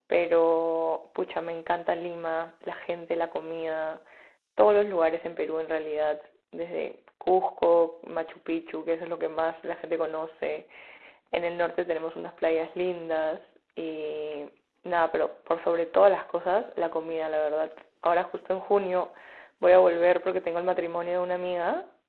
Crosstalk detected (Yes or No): No